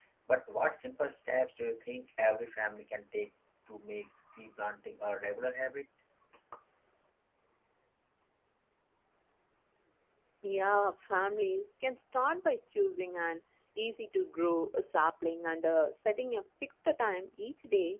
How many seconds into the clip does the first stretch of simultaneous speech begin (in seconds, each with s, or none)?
none